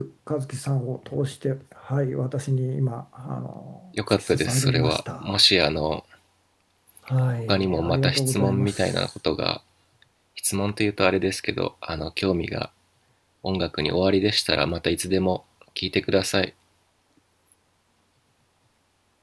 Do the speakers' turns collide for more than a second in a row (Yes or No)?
Yes